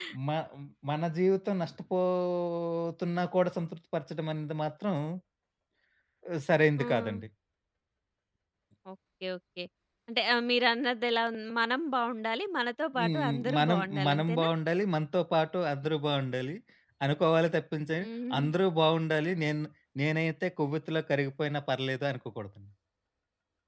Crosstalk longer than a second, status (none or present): present